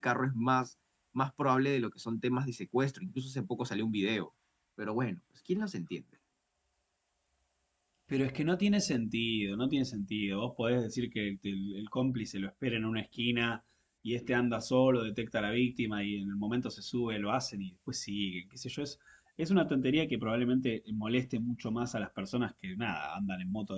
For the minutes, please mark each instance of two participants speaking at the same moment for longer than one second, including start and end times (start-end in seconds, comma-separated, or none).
none